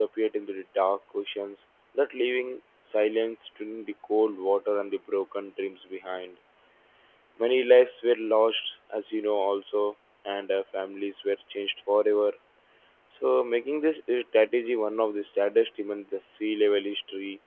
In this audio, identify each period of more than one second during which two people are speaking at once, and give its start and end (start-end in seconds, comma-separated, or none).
none